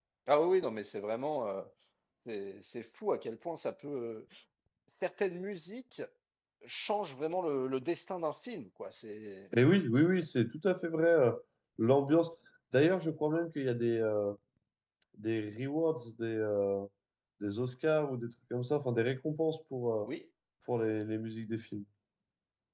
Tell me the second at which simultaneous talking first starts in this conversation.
none

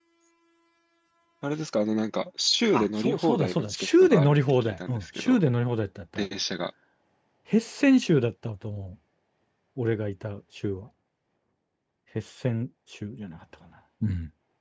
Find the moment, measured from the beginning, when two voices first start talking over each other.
2.7 s

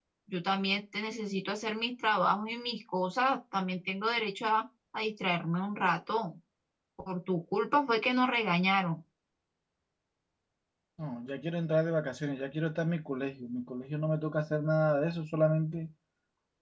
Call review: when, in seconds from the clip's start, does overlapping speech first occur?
none

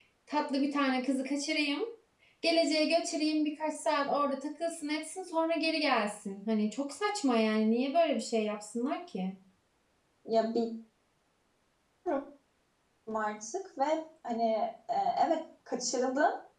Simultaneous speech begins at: none

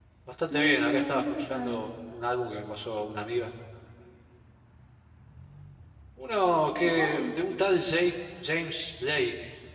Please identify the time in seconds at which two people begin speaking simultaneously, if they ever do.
0.5 s

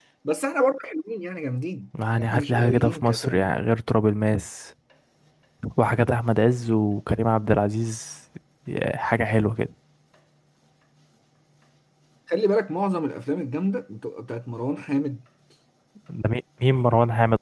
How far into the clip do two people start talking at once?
1.9 s

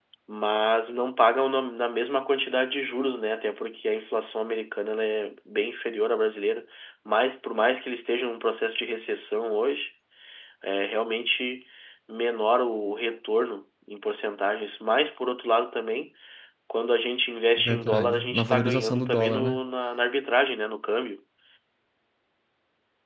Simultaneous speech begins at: 17.6 s

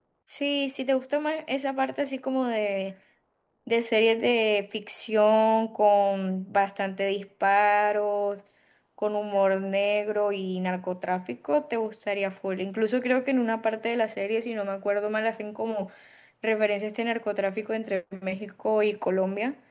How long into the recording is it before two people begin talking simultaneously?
none

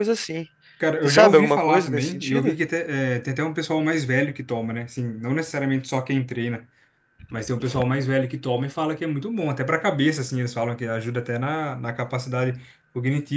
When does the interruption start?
1.1 s

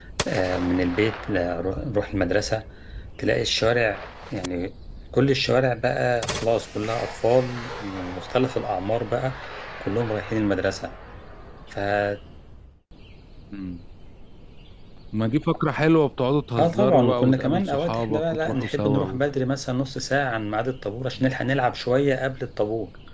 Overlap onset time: 16.6 s

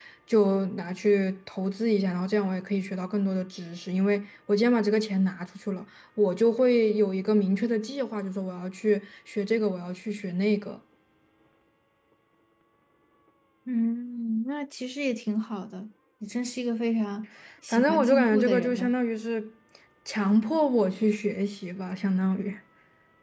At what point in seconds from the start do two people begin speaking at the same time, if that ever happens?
17.7 s

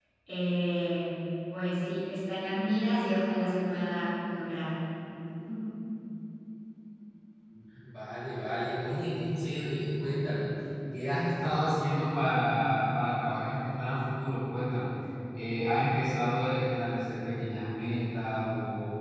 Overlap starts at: none

